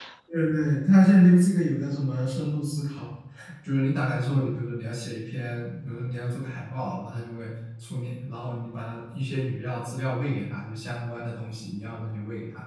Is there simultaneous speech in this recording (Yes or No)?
No